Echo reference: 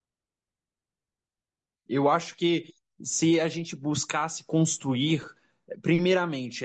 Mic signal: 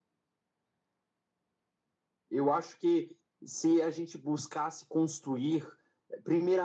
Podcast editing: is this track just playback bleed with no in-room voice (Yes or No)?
Yes